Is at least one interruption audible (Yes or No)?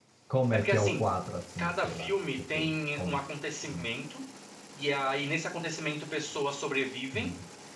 Yes